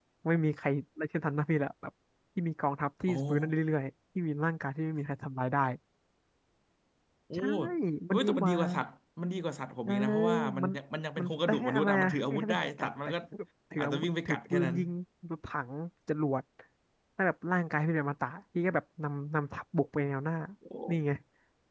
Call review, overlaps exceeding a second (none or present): present